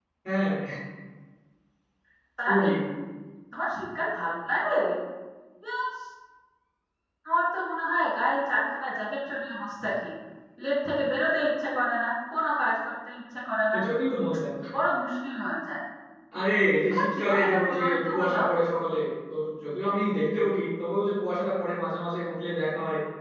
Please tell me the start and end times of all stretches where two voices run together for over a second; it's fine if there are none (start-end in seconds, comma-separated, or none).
16.9-18.4